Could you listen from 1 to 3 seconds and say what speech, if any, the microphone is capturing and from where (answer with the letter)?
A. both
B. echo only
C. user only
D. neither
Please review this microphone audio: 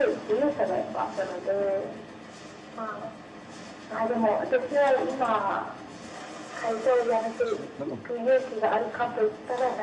B